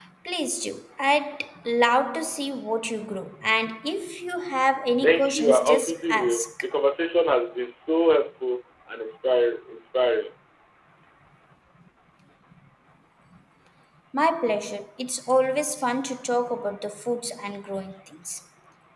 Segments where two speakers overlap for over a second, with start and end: 5.0-6.5

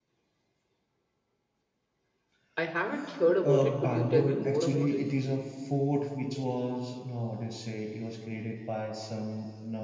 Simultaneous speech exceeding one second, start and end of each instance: 3.4-5.0

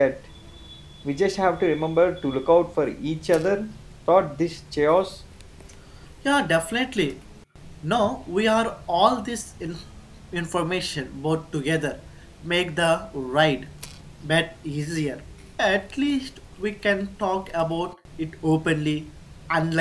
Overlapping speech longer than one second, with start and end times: none

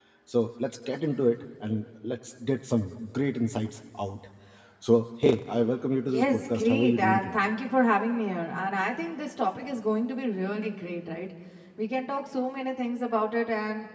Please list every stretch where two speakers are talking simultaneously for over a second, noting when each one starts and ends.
6.0-7.4

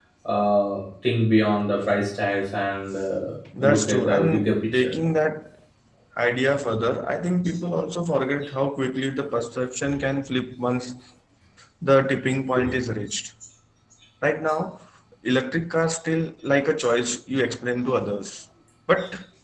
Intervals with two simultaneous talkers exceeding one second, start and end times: 3.6-4.9

